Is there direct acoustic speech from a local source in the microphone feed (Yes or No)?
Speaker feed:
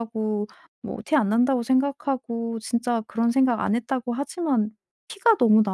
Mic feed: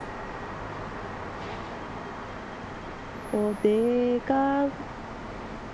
Yes